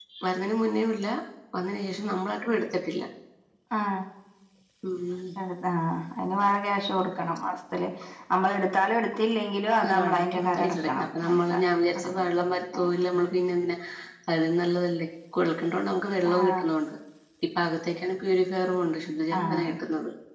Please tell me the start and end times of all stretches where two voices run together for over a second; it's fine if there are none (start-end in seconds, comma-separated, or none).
9.8-11.4